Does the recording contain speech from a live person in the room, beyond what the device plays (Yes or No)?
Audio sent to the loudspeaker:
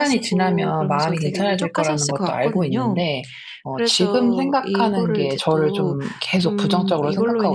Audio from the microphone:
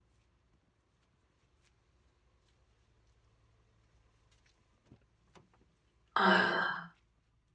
Yes